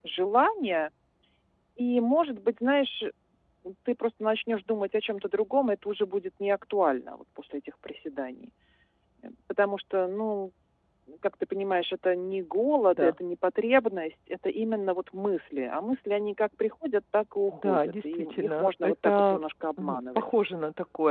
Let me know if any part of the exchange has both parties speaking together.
Yes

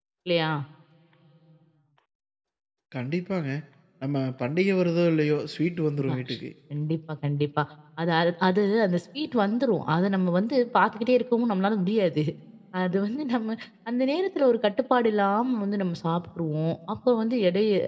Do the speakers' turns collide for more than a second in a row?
No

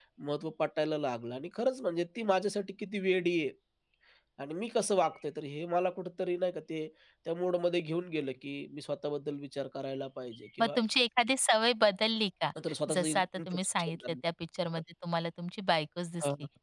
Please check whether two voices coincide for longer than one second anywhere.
Yes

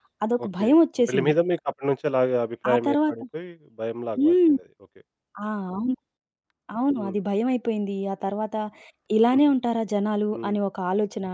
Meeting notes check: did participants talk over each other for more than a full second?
No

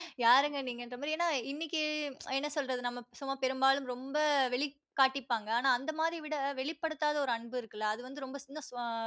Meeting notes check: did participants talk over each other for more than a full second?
No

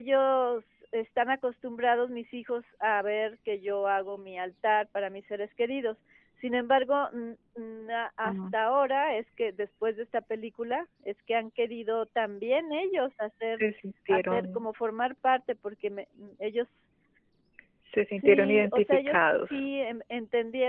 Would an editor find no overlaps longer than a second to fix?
No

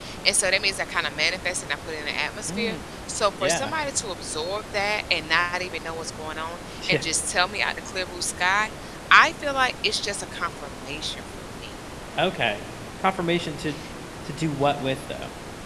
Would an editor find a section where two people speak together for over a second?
No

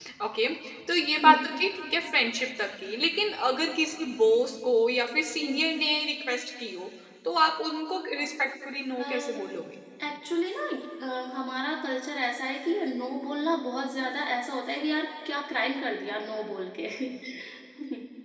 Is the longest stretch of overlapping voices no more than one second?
Yes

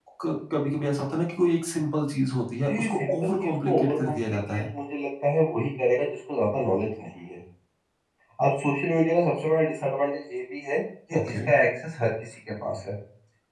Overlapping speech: Yes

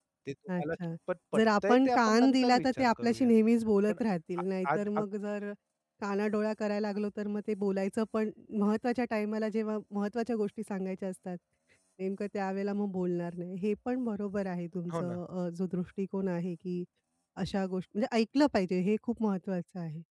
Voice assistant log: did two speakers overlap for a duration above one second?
Yes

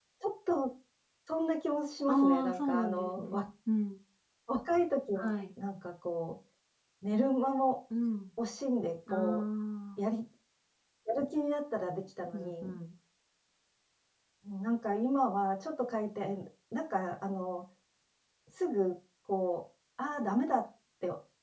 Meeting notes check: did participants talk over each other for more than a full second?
Yes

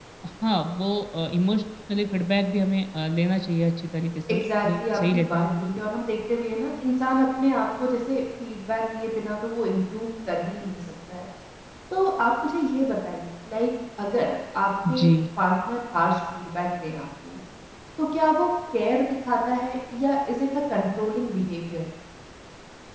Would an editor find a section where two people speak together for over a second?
Yes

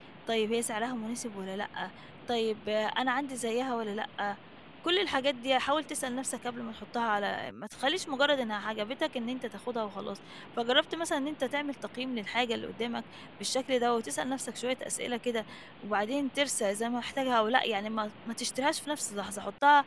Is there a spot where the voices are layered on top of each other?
No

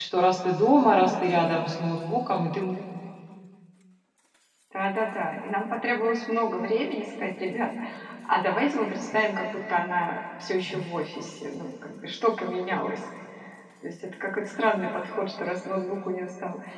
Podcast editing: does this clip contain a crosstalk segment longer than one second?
No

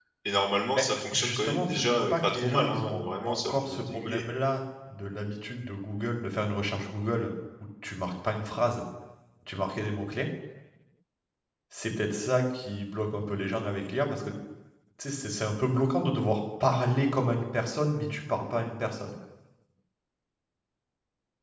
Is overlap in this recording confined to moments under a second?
No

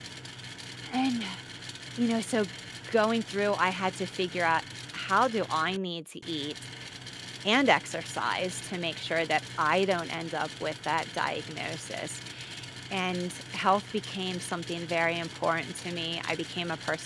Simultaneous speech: No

